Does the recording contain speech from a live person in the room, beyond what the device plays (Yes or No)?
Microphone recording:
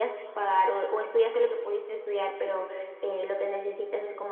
No